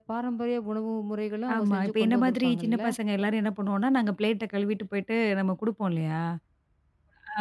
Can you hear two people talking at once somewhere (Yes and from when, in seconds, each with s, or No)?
Yes, from 1.5 s